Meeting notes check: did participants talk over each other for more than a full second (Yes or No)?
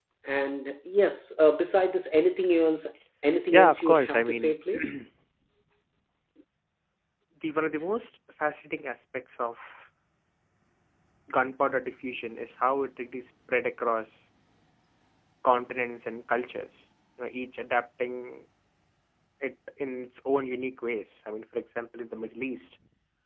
Yes